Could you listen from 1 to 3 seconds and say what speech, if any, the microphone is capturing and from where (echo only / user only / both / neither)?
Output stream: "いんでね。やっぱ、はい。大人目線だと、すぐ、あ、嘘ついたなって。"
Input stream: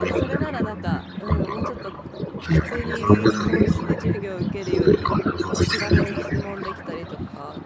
both